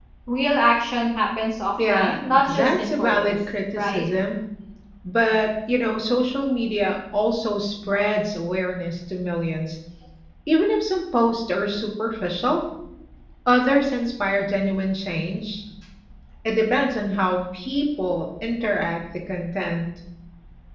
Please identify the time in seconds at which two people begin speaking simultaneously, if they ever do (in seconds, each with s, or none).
1.8 s